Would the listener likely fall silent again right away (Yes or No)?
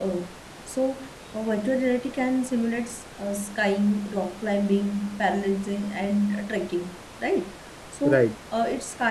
Yes